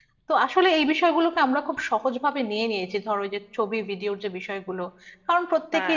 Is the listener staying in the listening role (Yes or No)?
Yes